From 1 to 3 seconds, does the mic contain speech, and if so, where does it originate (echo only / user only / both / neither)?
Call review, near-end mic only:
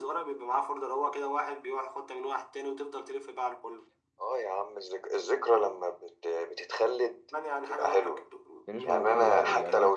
echo only